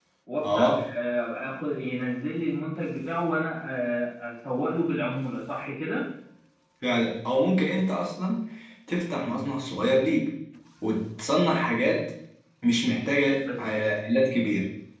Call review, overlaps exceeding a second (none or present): none